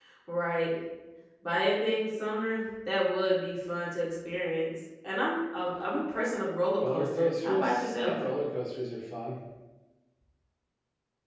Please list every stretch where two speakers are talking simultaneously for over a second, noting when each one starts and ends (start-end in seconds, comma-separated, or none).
6.8-8.2